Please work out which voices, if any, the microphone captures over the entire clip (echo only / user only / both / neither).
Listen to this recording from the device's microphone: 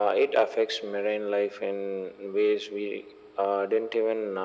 echo only